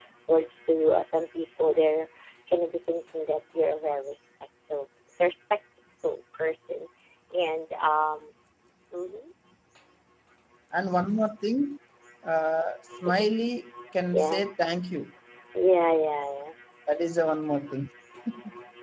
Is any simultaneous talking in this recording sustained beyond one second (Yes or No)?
No